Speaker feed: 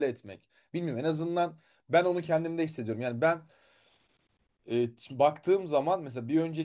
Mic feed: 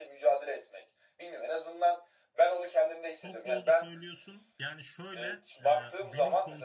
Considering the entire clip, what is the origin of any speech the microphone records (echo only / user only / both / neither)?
both